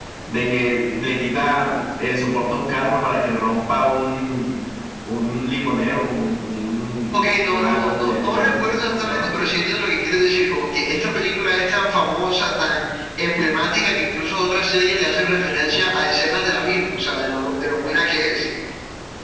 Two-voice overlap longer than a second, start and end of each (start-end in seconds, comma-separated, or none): 7.1-9.3